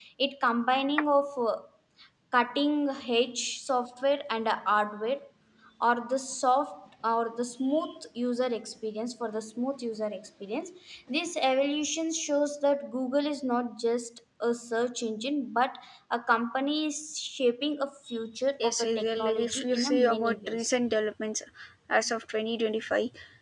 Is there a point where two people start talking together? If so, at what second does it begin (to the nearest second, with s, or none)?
19 s